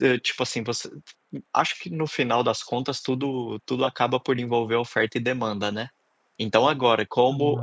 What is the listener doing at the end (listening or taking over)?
listening